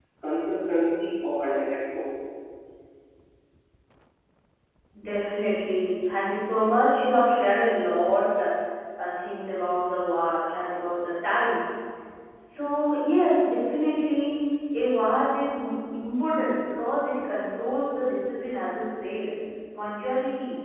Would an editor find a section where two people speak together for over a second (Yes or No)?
No